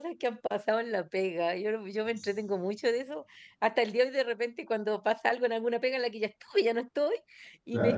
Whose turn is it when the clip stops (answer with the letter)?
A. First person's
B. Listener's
A